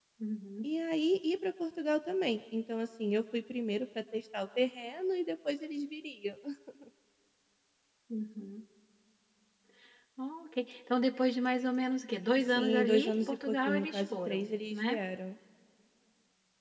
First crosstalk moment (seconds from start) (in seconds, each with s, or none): 12.5 s